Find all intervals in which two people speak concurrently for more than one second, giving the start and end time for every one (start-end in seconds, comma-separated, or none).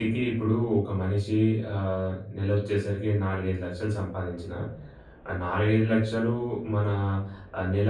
none